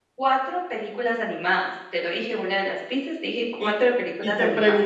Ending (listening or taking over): taking over